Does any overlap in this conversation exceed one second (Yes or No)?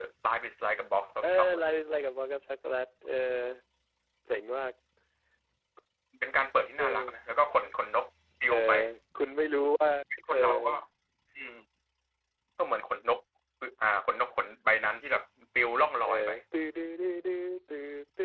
No